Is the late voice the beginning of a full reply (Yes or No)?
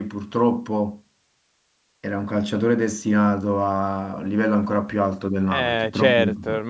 Yes